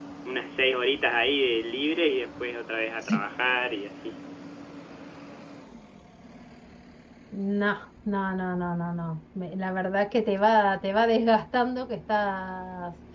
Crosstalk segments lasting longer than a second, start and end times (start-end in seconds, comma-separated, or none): none